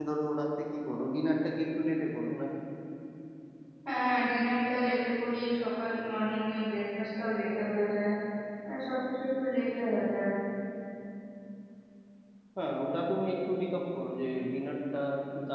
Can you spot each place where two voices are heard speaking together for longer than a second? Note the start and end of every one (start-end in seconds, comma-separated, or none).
none